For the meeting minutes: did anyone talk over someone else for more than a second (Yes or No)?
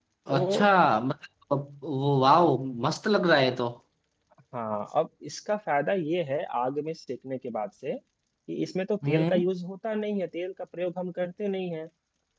No